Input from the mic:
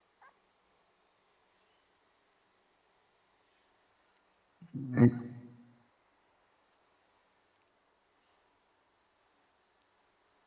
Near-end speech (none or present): present